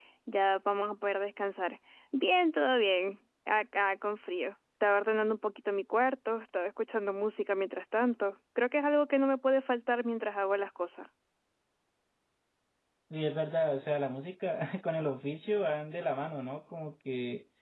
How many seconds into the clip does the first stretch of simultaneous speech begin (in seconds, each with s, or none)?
none